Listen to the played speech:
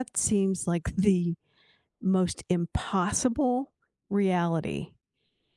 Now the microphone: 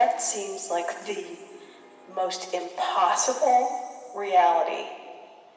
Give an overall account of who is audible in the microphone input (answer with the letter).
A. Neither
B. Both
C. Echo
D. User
C